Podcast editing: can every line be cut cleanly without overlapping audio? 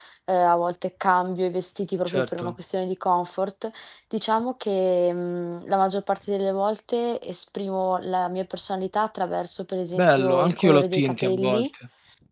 No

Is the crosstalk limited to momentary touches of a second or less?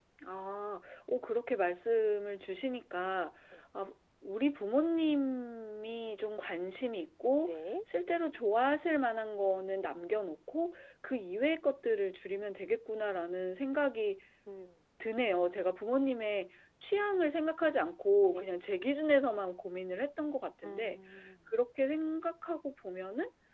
Yes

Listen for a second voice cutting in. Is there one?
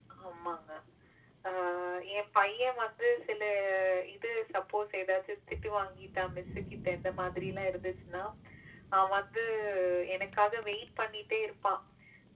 No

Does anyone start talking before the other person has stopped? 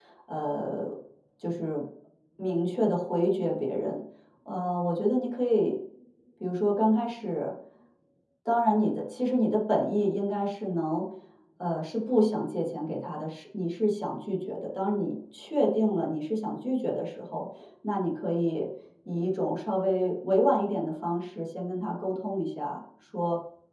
No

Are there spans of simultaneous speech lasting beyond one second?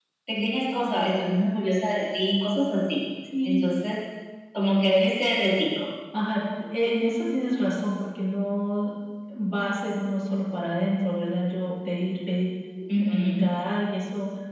No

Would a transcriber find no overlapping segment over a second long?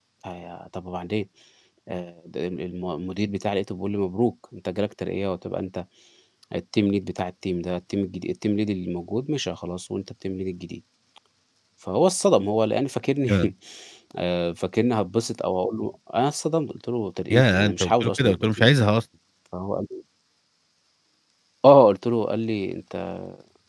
No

